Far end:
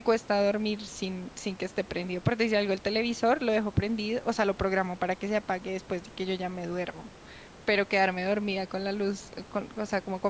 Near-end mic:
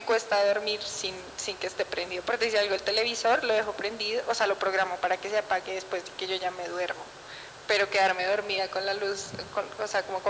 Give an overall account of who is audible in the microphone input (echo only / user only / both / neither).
echo only